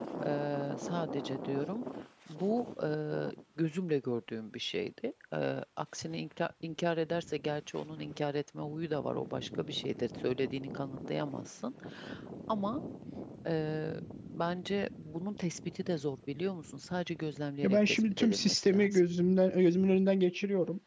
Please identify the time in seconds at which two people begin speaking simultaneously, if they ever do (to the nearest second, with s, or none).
18 s